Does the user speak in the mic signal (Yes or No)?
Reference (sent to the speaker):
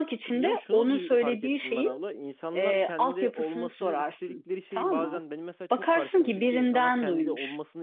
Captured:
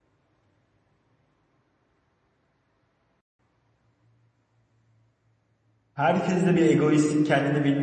Yes